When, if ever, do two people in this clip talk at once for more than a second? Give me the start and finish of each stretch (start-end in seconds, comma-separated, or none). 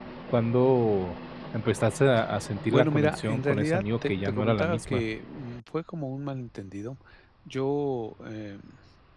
2.7-5.0